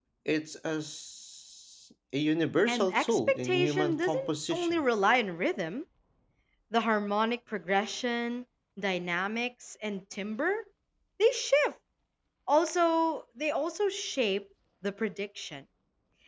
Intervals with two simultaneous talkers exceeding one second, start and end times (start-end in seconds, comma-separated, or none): 2.7-4.8